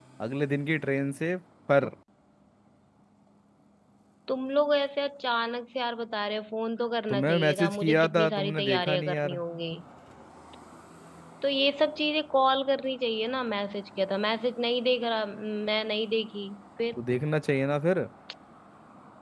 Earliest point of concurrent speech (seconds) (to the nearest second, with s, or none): 7 s